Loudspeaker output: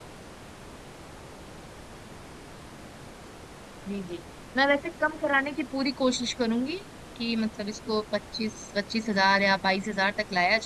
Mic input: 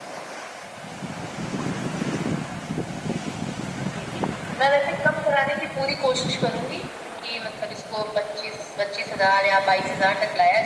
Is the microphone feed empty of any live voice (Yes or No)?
Yes